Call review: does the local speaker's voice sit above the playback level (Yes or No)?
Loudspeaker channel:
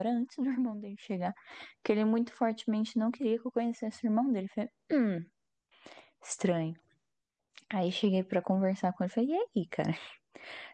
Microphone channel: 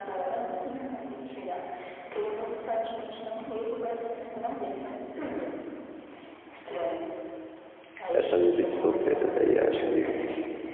Yes